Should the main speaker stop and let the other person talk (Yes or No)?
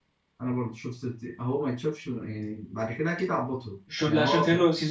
Yes